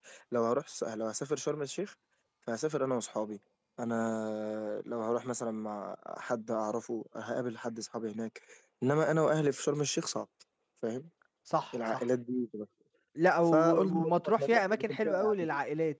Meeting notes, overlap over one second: present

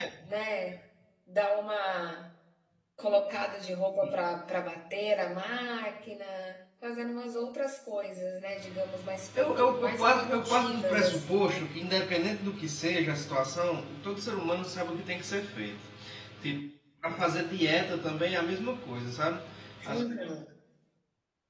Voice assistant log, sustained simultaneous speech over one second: present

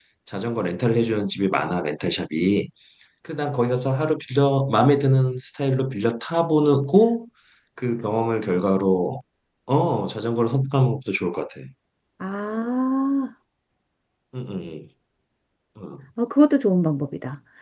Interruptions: none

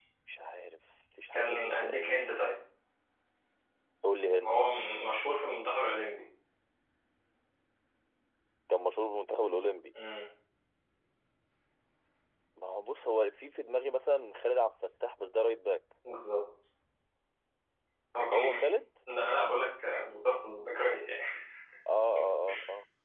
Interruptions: present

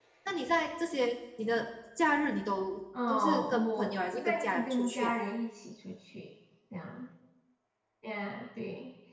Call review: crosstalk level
present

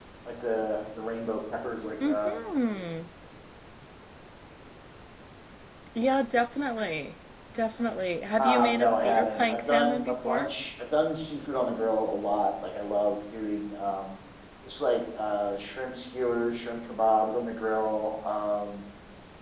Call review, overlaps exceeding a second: present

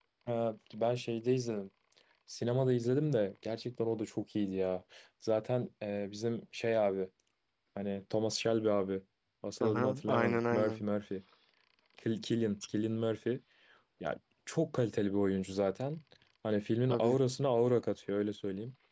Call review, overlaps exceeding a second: present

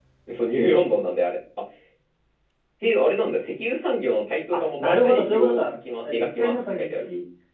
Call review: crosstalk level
present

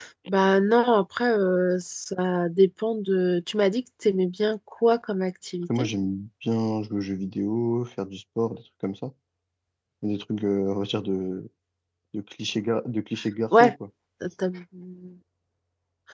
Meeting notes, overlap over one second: none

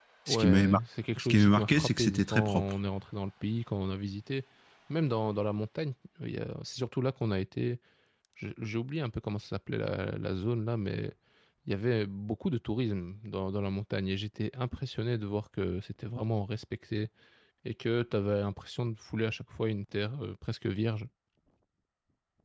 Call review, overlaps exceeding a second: present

